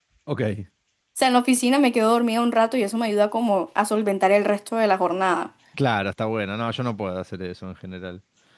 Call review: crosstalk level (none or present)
none